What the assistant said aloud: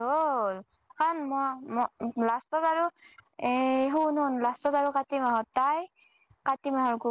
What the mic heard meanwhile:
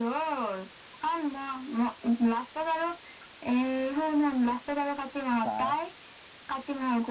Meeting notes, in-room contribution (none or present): present